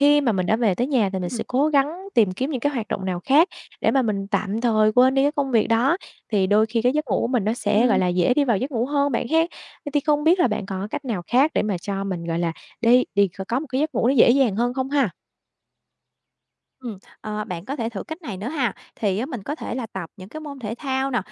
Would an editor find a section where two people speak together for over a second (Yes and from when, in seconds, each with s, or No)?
No